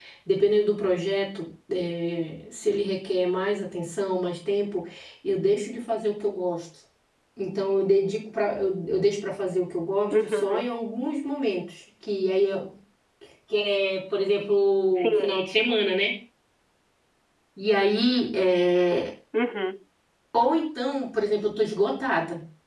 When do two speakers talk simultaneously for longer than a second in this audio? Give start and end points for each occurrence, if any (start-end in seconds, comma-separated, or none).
none